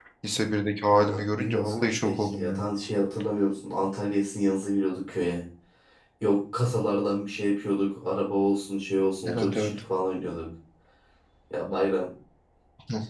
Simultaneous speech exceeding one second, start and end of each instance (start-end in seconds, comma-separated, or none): 0.9-2.6